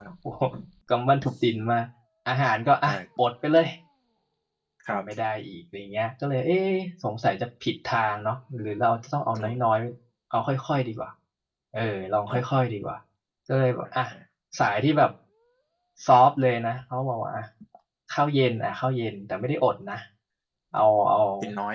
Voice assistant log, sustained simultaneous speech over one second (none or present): none